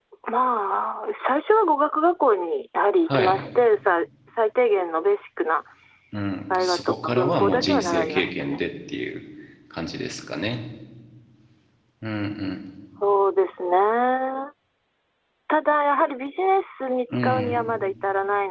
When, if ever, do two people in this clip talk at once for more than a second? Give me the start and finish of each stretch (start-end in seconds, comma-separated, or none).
6.5-8.6